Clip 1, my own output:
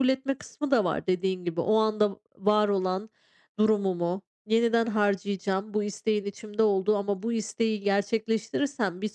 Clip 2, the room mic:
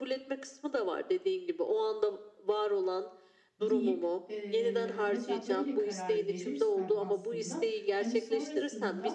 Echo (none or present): present